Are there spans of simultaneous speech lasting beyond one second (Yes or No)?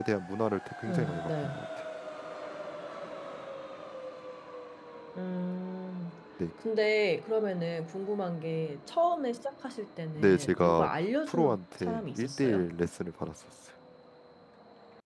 Yes